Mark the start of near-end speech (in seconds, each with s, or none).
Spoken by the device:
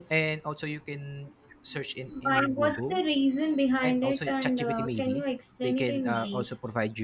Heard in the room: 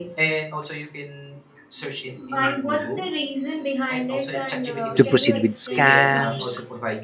5.0 s